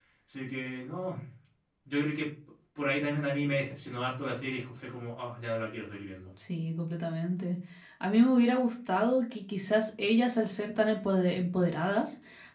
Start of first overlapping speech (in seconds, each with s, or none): none